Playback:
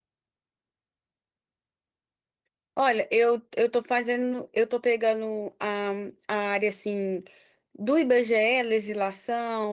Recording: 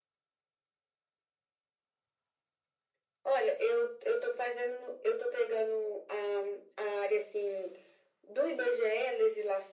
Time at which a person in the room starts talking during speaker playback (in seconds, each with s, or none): none